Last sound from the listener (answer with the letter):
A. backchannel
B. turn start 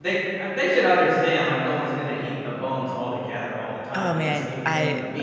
B